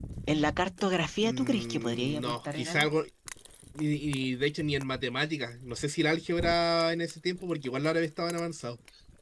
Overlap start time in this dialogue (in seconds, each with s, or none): 1.2 s